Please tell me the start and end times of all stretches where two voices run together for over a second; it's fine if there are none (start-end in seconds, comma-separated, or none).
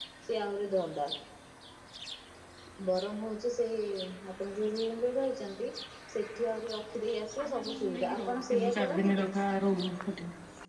7.4-9.3